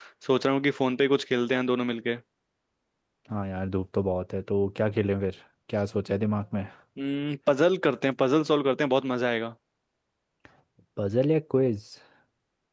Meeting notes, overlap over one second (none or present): none